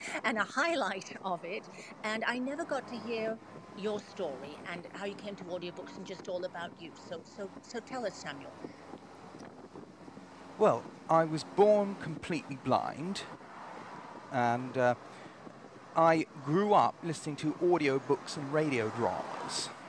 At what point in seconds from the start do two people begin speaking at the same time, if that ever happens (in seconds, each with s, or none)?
none